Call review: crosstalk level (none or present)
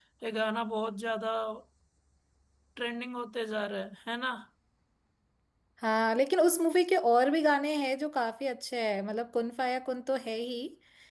none